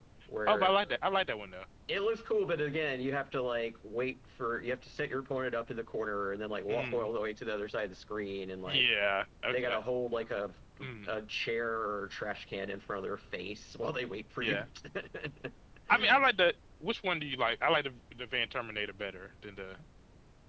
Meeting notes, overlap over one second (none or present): none